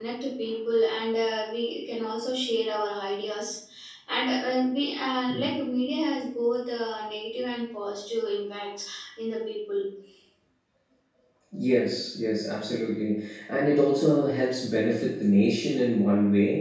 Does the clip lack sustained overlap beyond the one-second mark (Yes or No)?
Yes